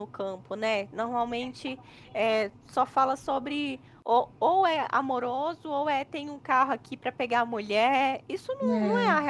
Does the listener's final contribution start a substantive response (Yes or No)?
No